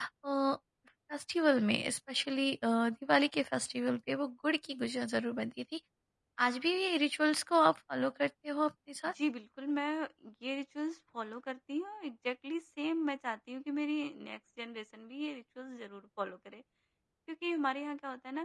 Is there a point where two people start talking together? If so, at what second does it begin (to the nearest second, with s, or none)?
none